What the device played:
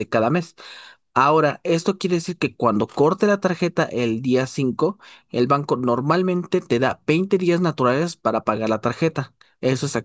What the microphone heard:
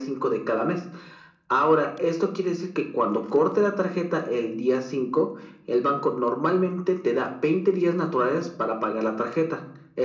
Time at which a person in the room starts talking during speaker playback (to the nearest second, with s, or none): none